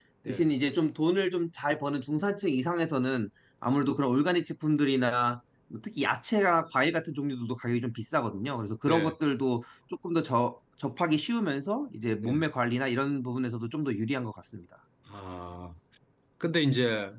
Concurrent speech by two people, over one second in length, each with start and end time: none

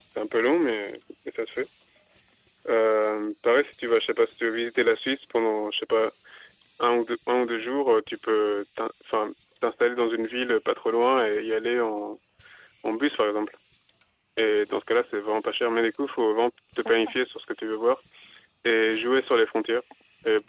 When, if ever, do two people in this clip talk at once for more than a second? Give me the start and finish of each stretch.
none

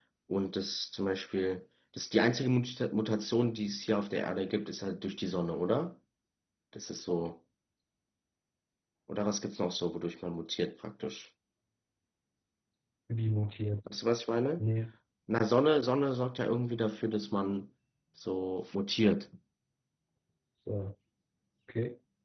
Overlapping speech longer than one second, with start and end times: none

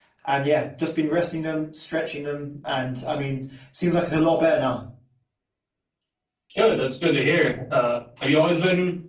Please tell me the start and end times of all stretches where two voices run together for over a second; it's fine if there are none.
none

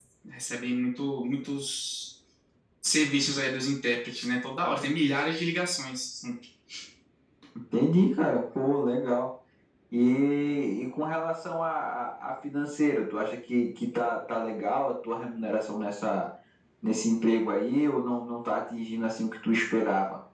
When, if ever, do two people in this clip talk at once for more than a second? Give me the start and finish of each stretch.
none

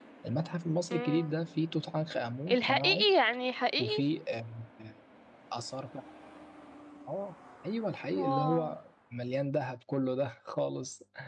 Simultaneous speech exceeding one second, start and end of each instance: none

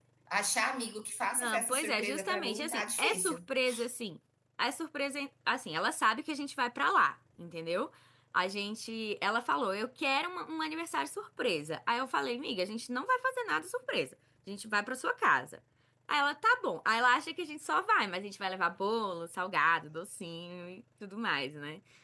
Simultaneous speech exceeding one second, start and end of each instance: 1.4-3.4

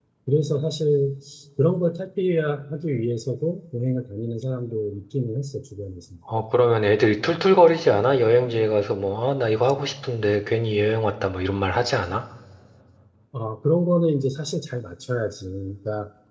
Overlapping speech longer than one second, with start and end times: none

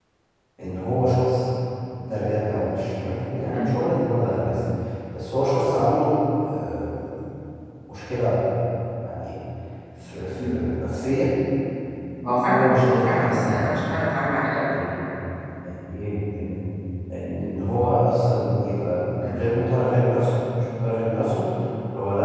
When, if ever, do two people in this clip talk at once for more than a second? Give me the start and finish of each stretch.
12.5-13.7

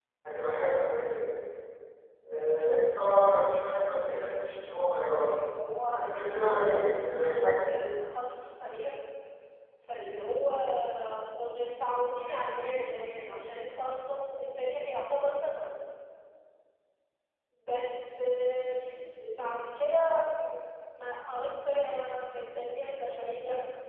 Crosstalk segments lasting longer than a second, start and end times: 6.0-7.7

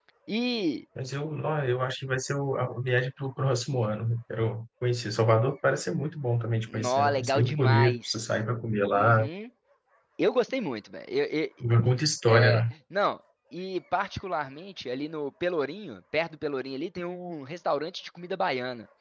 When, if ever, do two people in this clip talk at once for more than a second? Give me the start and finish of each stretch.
6.7-8.3

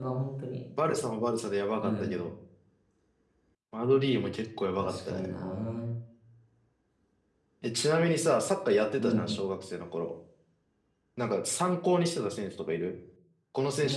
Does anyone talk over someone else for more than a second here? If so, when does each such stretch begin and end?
none

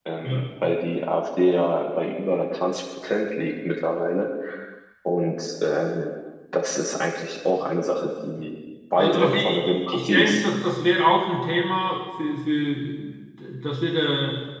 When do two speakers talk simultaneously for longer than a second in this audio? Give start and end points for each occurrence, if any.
9.0-10.4

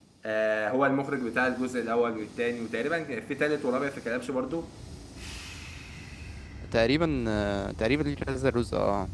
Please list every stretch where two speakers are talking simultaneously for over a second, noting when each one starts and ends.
none

